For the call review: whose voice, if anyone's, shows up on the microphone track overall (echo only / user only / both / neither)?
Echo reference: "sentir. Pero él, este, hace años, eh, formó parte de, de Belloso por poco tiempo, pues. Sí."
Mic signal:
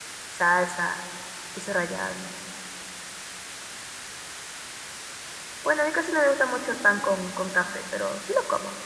user only